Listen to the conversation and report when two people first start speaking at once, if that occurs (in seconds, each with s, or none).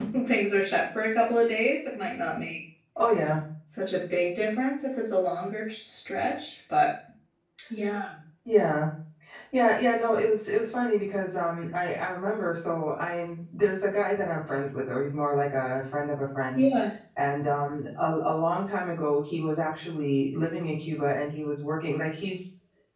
none